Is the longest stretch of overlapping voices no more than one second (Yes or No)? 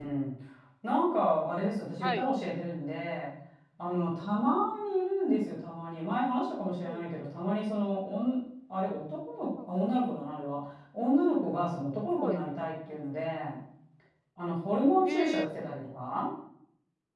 Yes